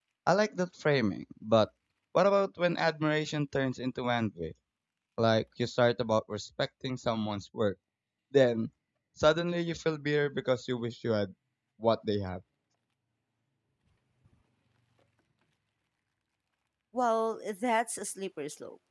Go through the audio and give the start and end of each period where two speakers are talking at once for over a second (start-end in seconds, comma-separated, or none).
none